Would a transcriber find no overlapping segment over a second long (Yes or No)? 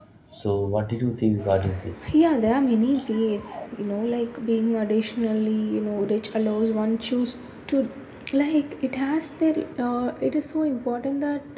Yes